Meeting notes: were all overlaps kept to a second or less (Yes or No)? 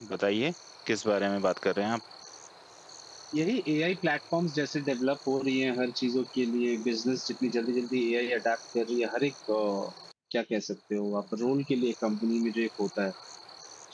Yes